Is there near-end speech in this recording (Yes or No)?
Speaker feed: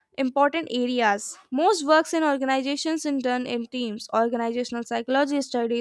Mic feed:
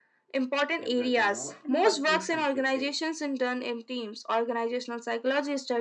Yes